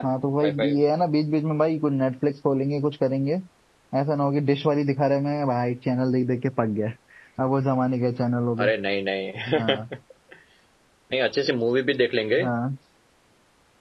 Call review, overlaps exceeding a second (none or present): none